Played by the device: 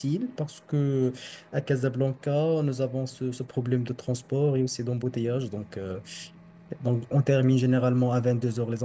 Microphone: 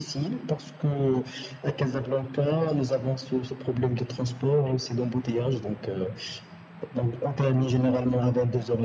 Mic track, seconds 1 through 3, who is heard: echo only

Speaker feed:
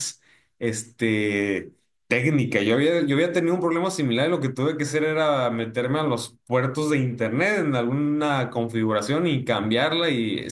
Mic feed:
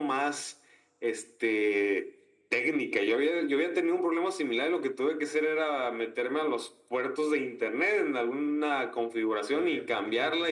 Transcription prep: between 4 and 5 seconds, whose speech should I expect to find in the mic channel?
echo only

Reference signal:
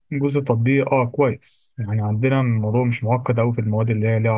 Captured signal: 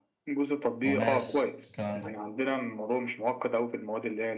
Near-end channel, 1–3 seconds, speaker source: both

